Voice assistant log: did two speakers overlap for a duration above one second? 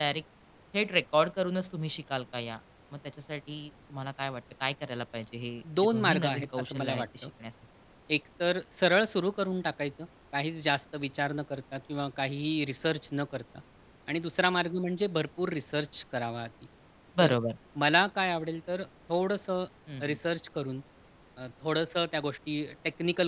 Yes, from 5.7 s

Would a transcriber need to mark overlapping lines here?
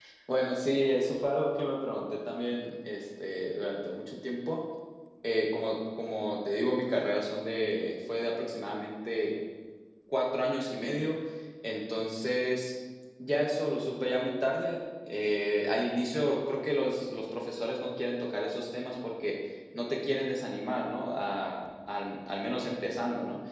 No

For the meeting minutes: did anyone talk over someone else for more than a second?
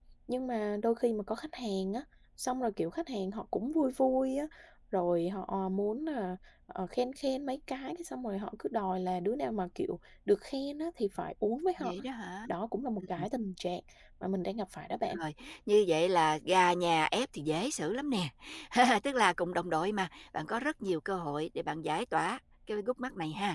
No

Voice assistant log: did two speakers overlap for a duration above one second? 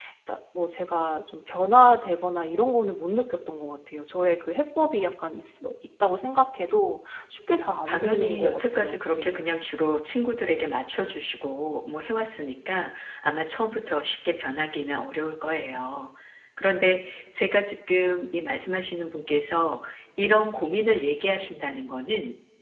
Yes, from 7.9 s

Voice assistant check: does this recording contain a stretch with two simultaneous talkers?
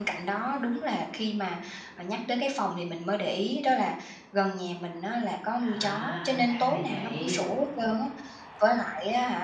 Yes, from 5.6 s

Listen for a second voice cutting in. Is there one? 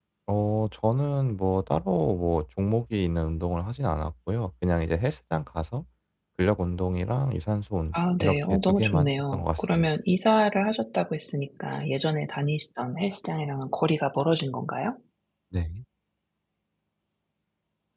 Yes, from 7.9 s

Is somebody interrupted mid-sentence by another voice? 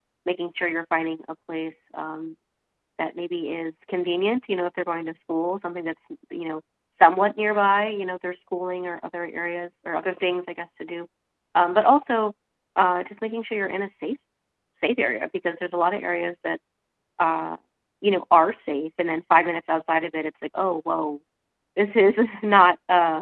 No

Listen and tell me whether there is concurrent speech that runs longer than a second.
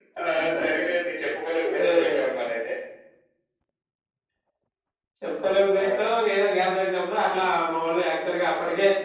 No

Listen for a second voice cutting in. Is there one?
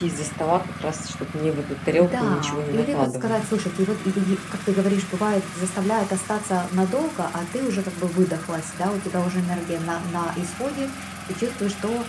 Yes, from 2.0 s

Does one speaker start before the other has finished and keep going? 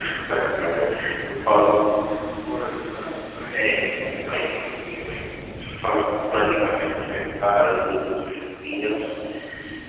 Yes, from 3.5 s

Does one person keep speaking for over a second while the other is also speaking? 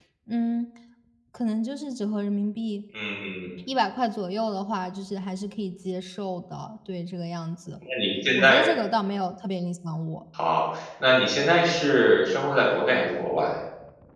No

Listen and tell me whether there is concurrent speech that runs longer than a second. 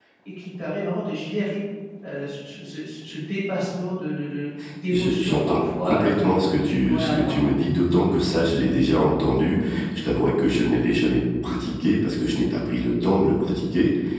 Yes, from 4.9 s

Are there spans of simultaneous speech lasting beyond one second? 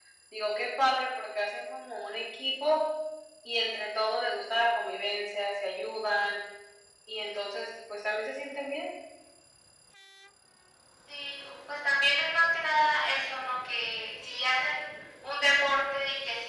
No

